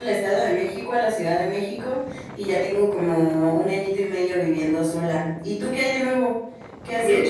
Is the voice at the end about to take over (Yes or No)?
Yes